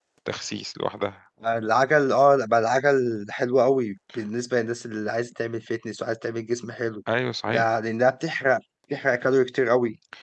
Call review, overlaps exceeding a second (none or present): none